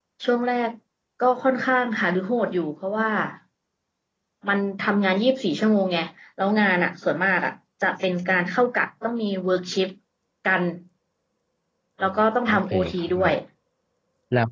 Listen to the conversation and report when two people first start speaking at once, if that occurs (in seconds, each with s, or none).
12.0 s